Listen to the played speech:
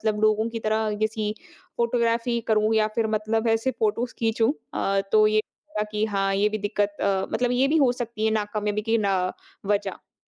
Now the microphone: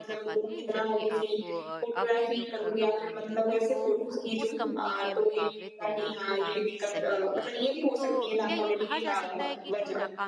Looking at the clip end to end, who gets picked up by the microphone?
both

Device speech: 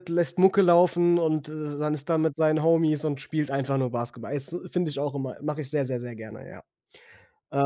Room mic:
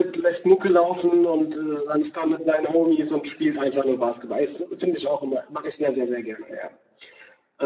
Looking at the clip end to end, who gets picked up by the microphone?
echo only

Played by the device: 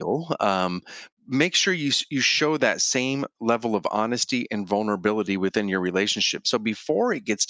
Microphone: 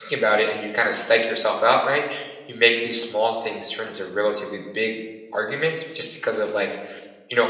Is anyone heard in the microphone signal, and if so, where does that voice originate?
user only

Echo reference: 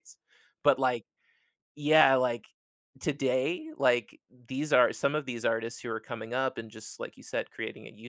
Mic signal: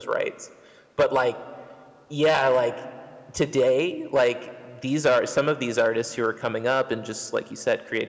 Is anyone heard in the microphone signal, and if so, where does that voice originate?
echo only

